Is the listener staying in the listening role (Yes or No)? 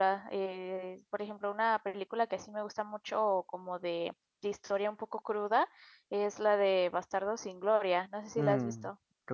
No